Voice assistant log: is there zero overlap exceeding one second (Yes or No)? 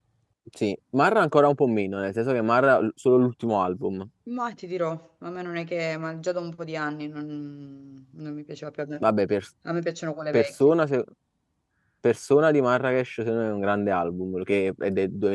Yes